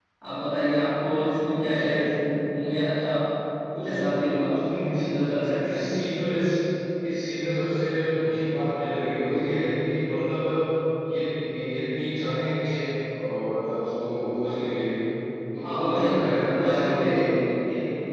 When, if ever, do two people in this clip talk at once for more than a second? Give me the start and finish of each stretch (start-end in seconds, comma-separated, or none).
15.6-17.2